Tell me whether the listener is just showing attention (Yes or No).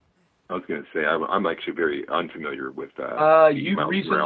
No